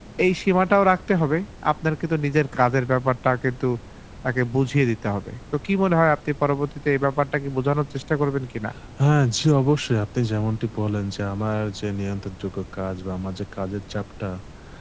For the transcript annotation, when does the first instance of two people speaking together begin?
none

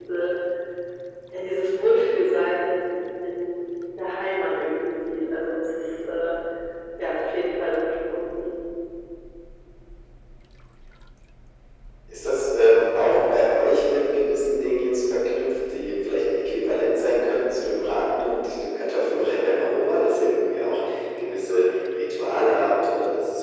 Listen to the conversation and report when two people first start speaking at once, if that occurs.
none

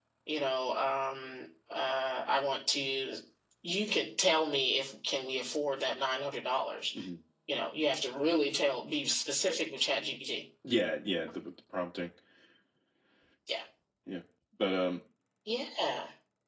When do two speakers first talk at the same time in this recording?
none

